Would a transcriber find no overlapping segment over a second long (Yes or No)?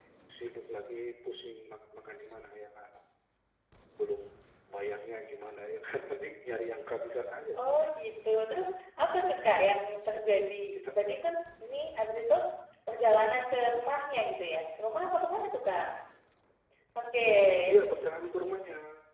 Yes